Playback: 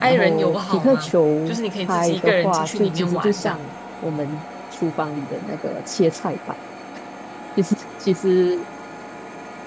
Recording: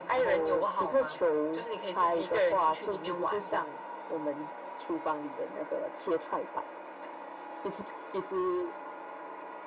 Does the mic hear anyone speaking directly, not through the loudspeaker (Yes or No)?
No